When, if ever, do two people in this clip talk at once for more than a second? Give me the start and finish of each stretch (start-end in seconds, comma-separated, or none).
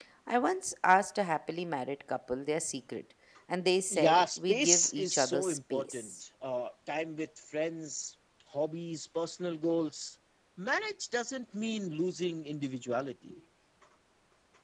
3.9-6.1